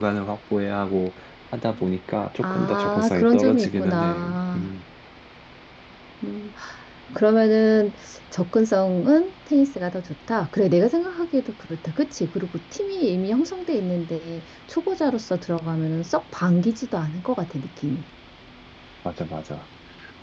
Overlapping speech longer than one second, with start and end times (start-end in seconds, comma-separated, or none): 2.4-4.7